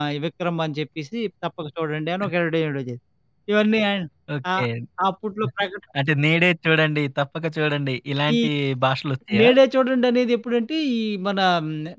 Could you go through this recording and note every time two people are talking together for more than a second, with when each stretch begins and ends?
none

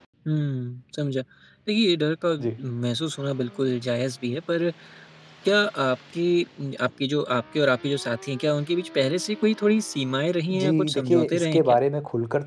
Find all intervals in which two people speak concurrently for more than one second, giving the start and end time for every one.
10.5-11.8

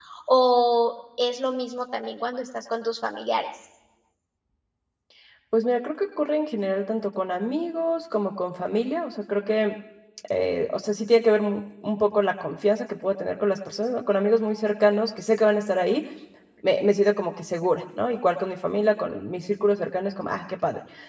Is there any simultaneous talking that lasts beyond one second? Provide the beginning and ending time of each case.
none

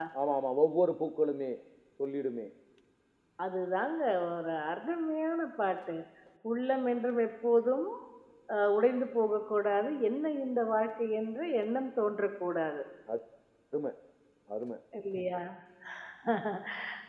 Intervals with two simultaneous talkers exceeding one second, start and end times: none

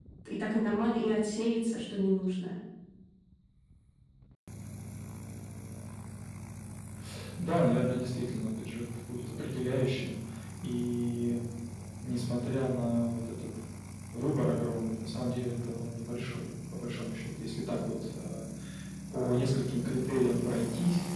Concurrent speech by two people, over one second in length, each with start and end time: none

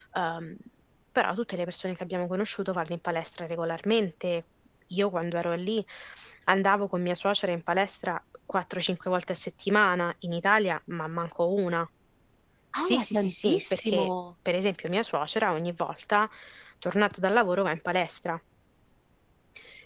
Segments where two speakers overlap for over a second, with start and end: 12.8-14.1

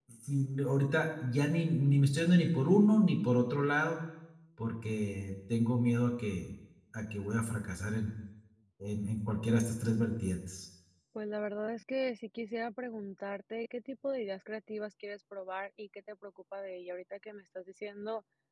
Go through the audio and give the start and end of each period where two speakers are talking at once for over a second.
none

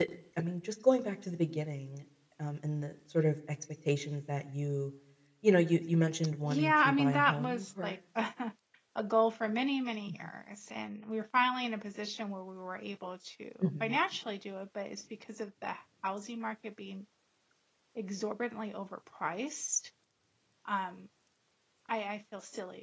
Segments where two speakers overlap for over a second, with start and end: 6.4-8.0

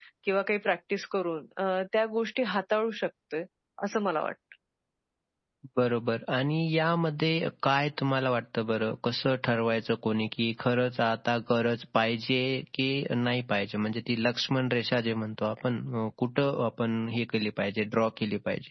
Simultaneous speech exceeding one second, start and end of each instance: none

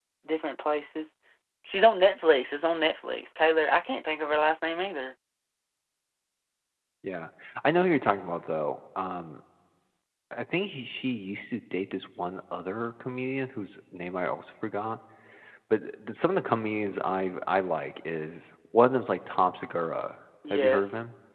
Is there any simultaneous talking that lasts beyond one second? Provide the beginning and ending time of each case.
none

